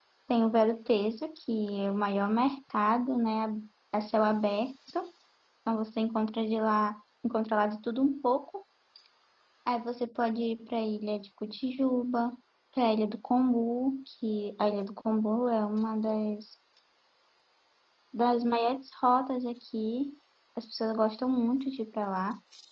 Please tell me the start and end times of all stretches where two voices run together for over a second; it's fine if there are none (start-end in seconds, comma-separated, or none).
none